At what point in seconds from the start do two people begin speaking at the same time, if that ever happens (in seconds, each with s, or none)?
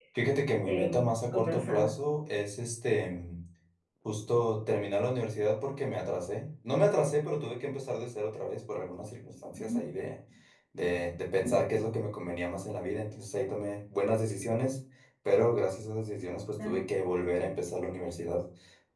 0.7 s